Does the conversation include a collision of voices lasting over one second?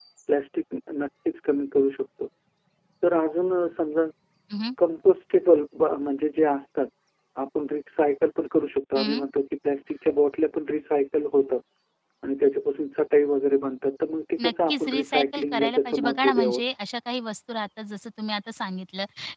Yes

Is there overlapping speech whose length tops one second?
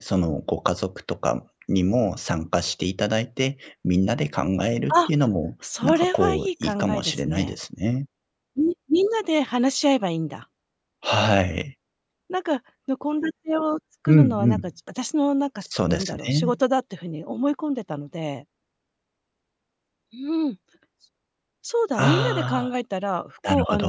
Yes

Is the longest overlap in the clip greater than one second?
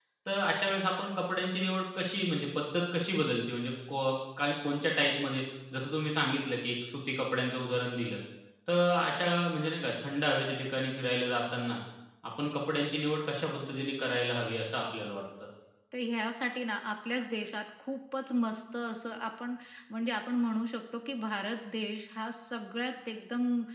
No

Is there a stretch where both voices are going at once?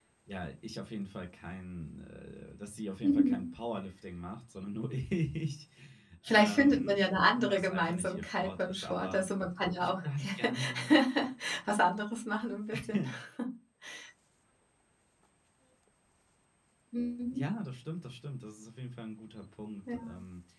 Yes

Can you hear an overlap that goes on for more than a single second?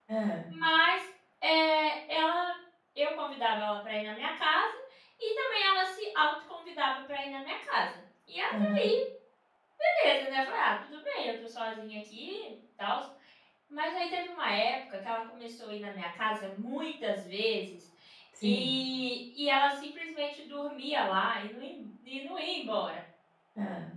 No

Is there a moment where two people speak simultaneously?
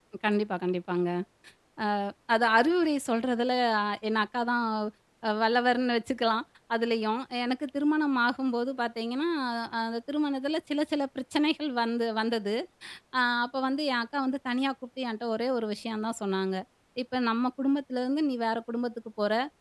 No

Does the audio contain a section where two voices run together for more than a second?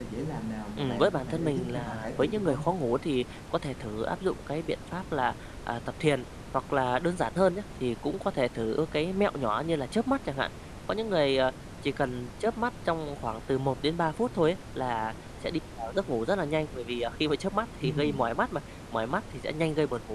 Yes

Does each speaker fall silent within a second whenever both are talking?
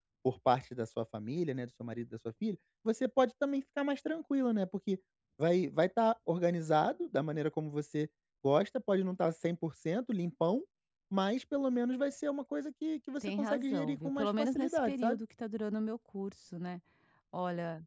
No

